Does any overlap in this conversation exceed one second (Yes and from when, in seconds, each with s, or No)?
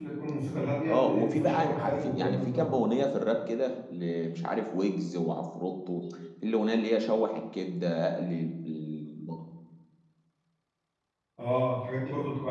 Yes, from 0.9 s